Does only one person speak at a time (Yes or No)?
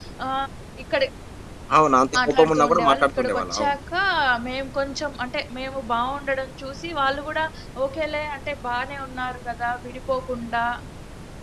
No